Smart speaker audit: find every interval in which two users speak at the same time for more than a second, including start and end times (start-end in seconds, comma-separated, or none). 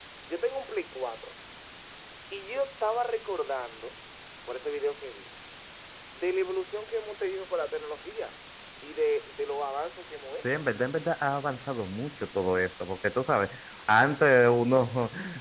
none